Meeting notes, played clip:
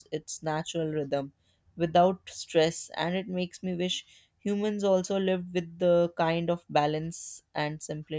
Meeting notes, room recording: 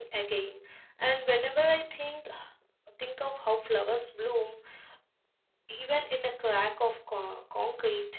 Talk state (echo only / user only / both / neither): user only